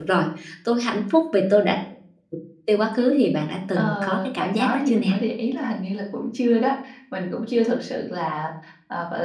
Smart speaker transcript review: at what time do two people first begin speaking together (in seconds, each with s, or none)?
3.8 s